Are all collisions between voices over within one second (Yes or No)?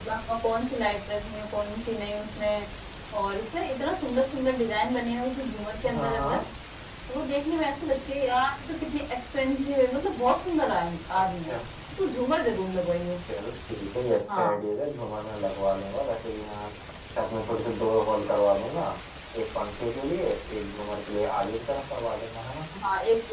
Yes